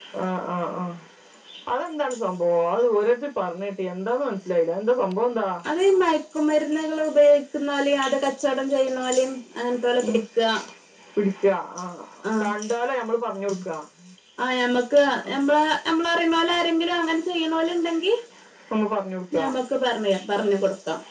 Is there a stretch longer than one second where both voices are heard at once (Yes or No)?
No